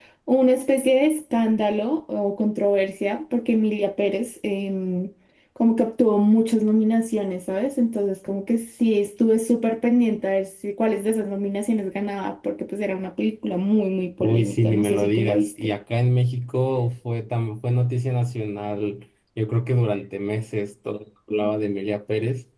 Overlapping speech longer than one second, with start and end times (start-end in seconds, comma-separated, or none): 14.2-15.7